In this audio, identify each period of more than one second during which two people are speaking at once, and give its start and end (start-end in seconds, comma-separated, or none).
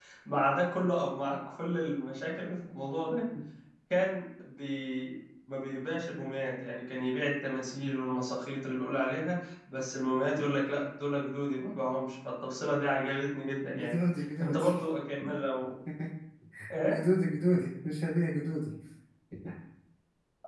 none